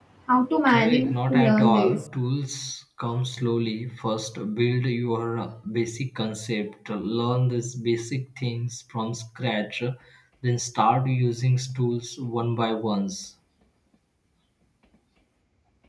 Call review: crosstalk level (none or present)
present